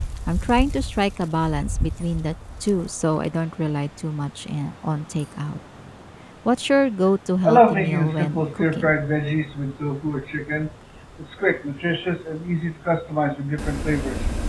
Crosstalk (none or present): present